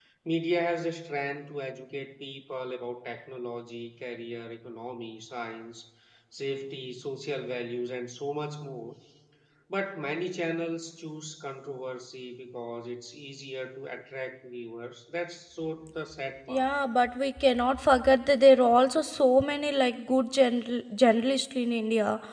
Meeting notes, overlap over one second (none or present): none